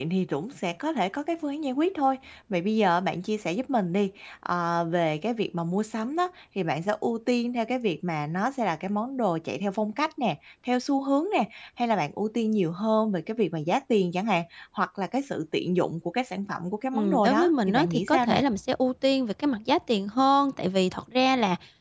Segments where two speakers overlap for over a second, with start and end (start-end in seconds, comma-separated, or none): 16.9-18.4